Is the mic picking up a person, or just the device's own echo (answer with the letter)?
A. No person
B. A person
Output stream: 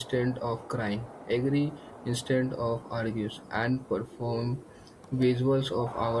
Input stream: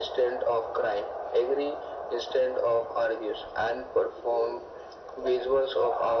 A